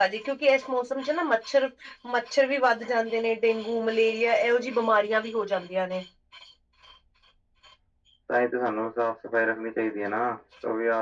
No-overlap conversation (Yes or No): Yes